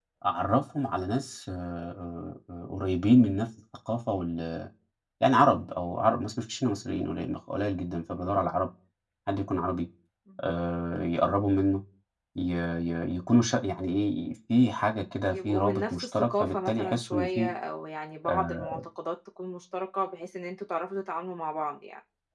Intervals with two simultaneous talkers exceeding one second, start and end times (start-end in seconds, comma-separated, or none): 15.3-17.5